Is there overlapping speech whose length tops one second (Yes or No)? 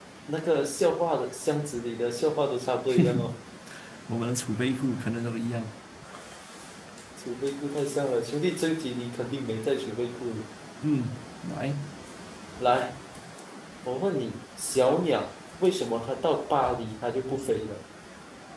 No